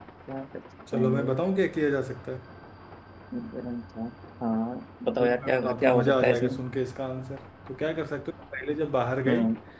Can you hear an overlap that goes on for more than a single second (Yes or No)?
Yes